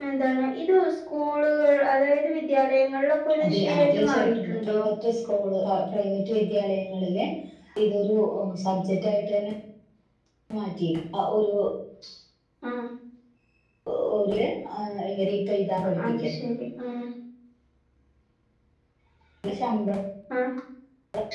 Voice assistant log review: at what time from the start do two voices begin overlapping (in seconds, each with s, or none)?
3.4 s